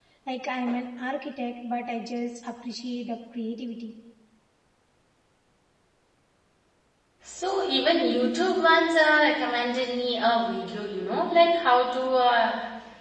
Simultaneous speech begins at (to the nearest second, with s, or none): none